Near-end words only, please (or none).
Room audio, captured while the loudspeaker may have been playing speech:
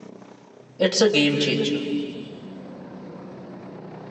It's a game changer.